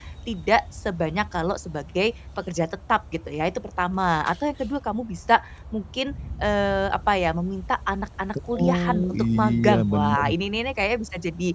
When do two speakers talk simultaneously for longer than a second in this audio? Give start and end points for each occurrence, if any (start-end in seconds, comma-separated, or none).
8.6-10.2